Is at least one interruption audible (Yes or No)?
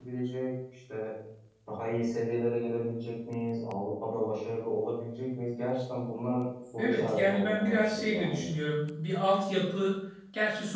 Yes